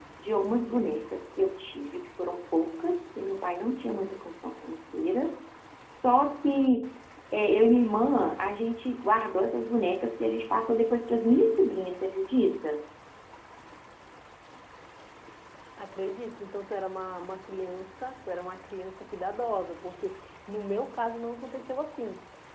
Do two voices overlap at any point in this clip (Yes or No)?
No